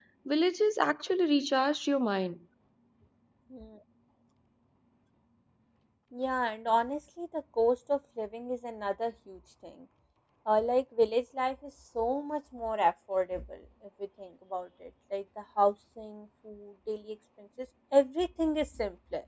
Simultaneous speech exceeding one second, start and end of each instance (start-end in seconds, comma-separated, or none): none